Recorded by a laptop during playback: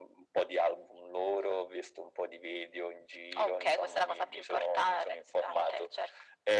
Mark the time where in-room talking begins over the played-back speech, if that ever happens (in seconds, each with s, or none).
none